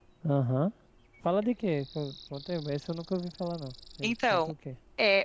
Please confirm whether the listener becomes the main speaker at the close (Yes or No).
Yes